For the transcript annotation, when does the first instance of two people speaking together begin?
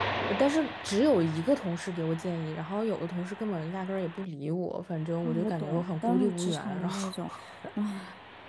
5.2 s

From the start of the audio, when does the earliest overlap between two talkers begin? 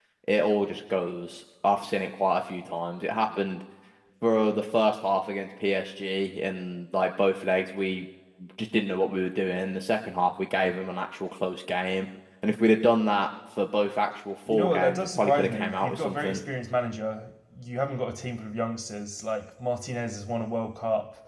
14.5 s

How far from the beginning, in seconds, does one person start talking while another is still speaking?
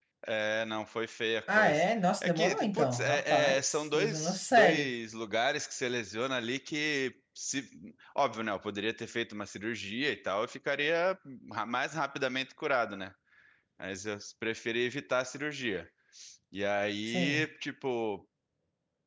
1.5 s

